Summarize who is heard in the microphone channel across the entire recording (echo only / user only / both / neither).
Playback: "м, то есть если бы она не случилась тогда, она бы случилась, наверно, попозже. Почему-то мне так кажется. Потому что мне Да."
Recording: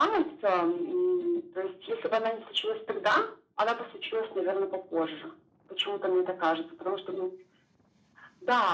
echo only